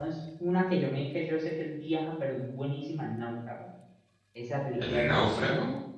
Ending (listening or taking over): listening